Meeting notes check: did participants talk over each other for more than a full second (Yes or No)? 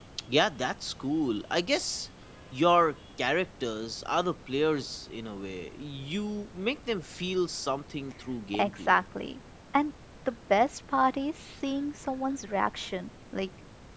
No